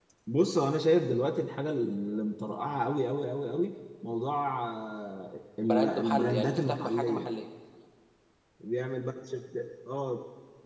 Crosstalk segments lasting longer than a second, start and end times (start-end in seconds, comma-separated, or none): 5.6-7.3